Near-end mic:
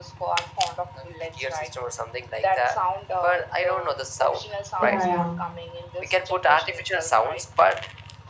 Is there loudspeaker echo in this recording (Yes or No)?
Yes